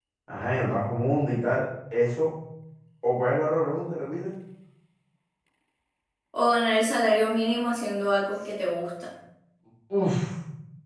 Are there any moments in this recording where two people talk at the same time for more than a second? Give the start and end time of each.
none

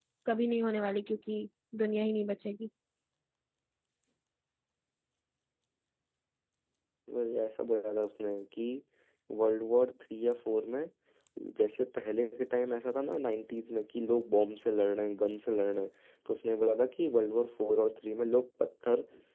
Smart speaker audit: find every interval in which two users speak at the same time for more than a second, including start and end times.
none

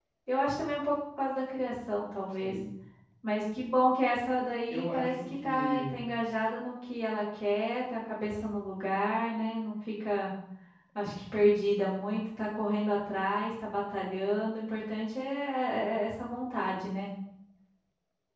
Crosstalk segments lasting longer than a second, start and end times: 4.7-6.0

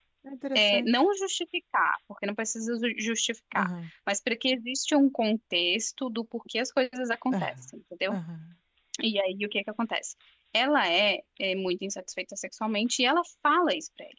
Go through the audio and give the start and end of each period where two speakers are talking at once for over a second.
none

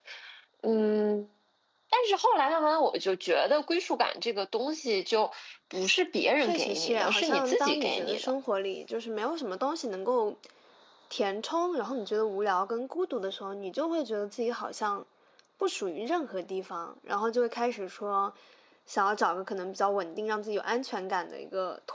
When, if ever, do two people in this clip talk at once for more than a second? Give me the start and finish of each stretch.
6.3-8.3

